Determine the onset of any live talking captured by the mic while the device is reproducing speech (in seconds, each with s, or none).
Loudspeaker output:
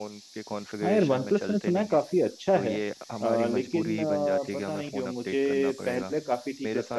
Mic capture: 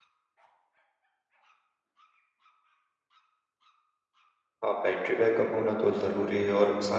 4.6 s